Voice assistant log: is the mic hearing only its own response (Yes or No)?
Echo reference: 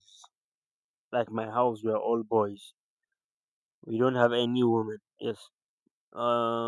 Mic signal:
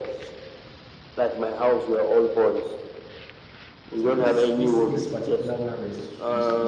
No